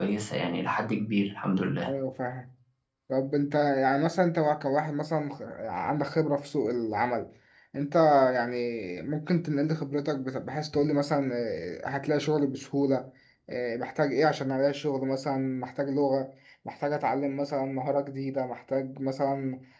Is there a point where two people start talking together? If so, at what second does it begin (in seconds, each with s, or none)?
none